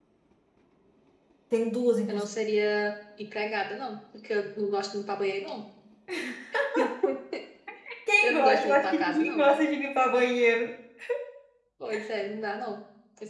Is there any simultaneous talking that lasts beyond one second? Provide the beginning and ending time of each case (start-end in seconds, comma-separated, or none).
8.2-9.6